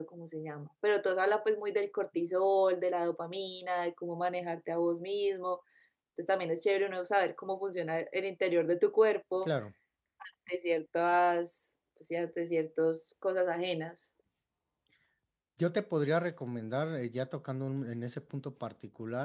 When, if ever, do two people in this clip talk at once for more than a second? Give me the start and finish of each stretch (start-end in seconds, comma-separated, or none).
none